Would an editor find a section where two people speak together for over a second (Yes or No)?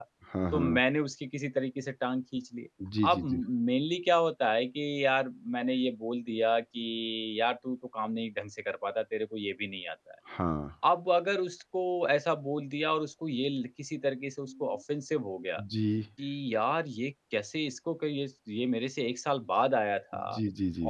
No